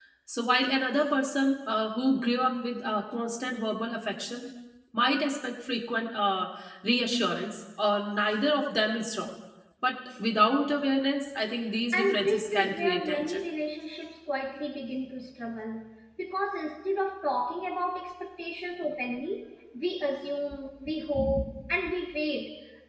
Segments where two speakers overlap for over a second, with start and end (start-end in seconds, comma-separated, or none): 11.9-13.4